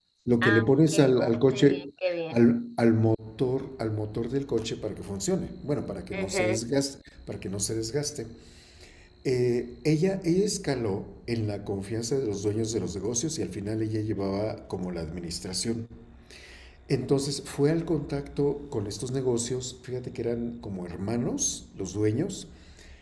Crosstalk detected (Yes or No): Yes